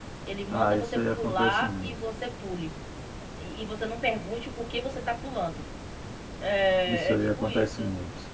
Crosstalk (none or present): present